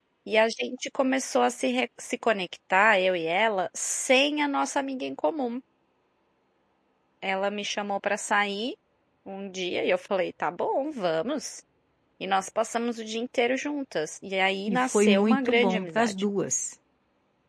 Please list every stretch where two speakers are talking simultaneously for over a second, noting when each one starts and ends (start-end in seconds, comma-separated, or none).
14.7-16.2